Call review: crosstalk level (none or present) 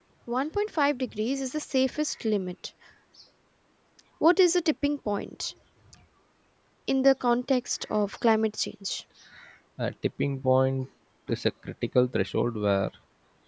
none